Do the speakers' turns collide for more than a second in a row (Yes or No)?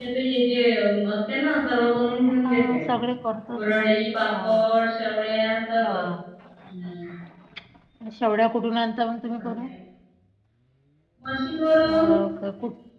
No